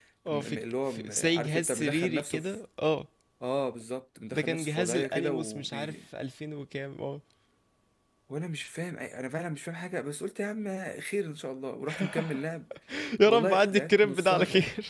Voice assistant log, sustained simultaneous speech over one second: present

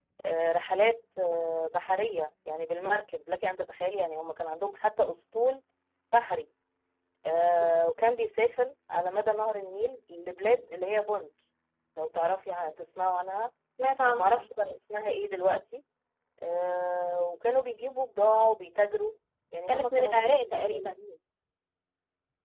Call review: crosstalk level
present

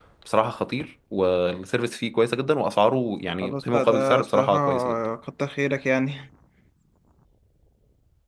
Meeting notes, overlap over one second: present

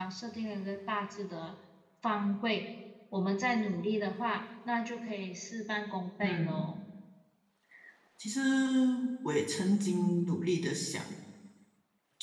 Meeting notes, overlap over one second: none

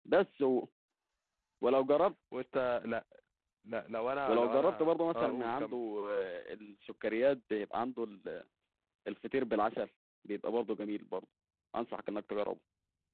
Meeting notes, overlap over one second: present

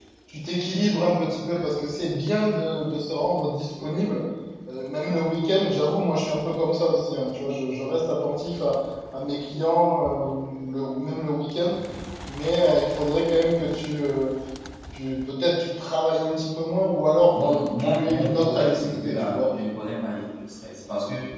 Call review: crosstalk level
present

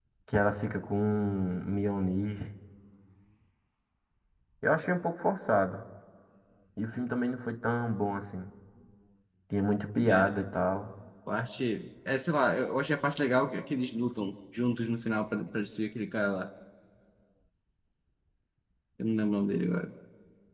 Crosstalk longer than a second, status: none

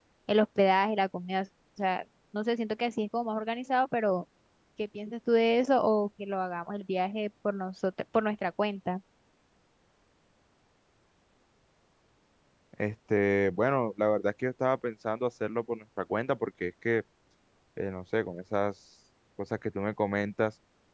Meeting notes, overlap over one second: none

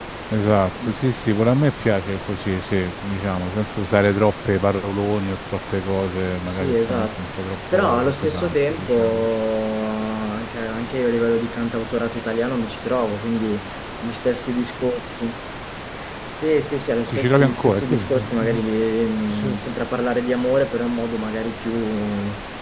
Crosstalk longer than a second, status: present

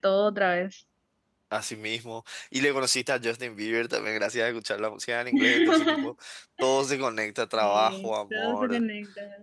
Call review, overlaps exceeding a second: present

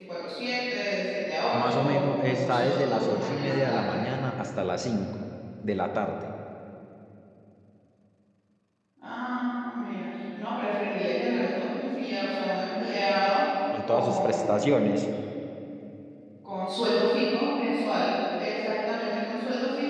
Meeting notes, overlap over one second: present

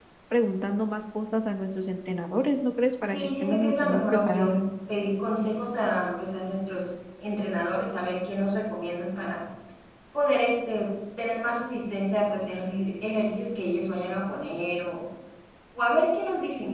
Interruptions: present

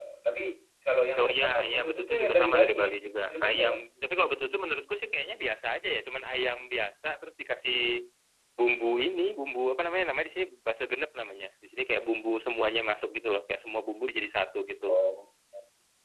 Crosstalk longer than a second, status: present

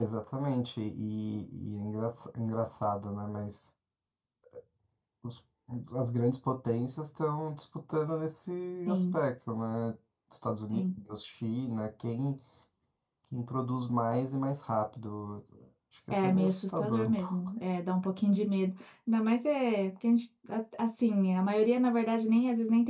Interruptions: present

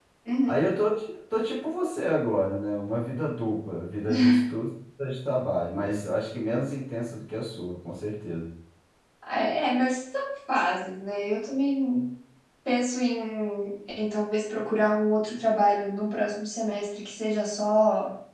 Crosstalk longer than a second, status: none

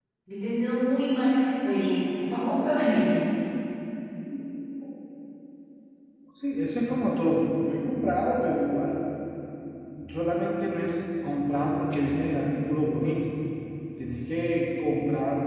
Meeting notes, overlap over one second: none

